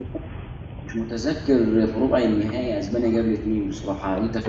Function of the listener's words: taking over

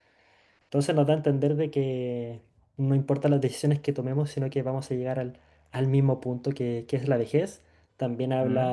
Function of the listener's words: listening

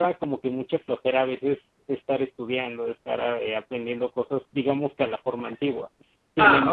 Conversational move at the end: listening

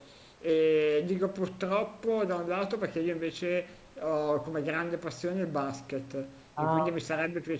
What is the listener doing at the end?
listening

